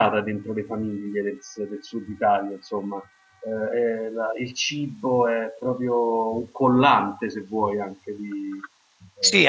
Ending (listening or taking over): taking over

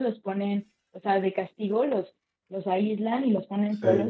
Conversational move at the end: listening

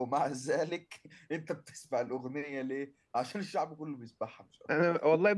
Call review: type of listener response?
taking over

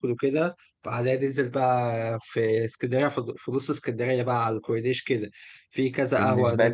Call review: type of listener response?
listening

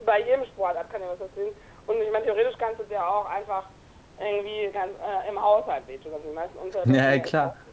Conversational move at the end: taking over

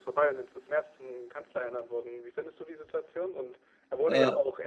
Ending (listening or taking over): listening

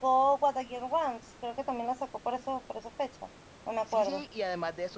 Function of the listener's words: taking over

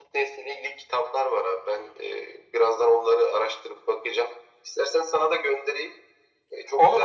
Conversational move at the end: taking over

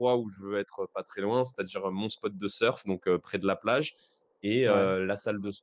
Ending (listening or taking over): listening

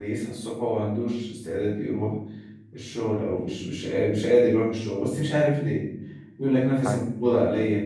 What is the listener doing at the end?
listening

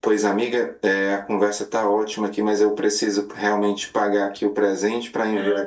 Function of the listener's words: listening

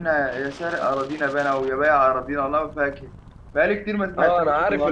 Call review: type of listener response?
taking over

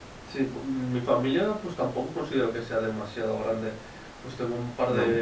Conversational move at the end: listening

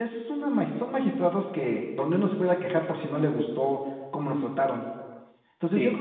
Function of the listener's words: listening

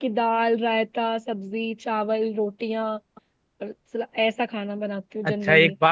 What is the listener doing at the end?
taking over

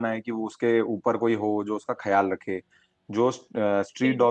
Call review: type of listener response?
listening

